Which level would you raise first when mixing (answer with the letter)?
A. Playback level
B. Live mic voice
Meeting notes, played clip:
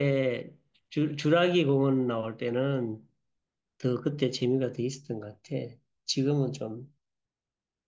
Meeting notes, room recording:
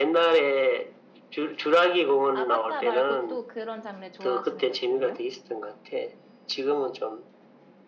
B